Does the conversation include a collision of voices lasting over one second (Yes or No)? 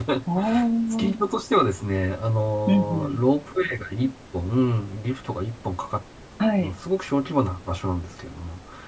No